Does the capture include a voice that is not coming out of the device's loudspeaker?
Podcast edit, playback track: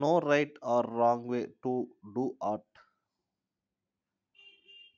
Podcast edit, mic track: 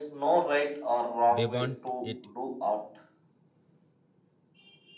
Yes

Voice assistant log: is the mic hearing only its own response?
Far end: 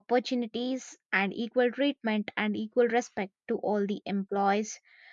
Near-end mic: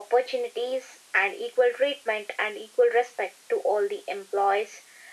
Yes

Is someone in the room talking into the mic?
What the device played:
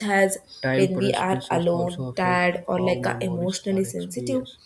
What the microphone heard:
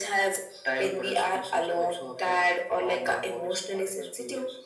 No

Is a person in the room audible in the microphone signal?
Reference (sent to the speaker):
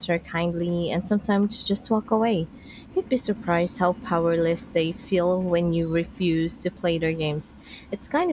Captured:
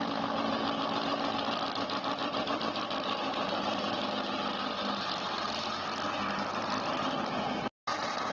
No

